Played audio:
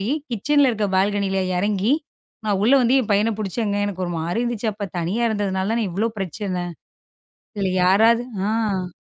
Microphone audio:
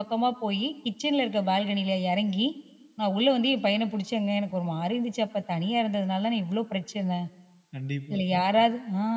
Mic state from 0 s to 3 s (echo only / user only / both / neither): echo only